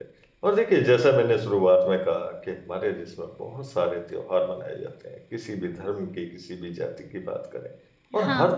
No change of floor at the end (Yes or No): Yes